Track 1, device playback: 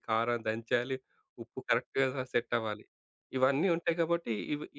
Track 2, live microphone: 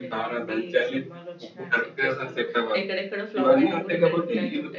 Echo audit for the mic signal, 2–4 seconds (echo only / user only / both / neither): both